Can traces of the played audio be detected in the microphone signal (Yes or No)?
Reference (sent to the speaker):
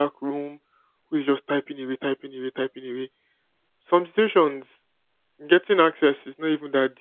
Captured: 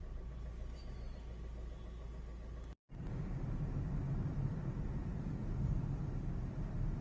No